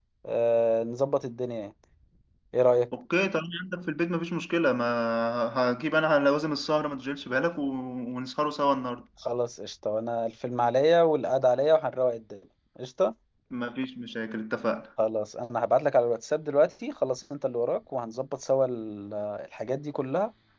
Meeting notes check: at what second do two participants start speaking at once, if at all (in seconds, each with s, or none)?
none